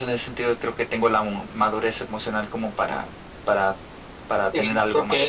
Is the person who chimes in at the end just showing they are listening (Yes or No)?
No